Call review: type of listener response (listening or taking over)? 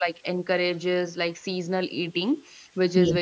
listening